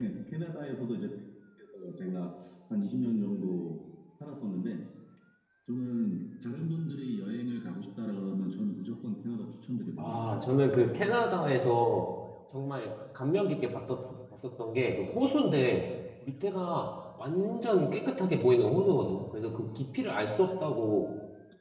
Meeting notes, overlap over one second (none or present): none